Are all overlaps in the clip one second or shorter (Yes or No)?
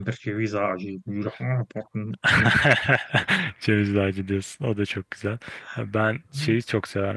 Yes